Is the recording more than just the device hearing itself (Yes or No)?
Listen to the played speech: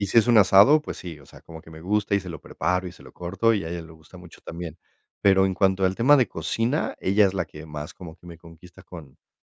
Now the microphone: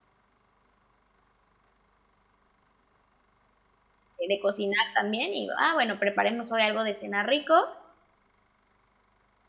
Yes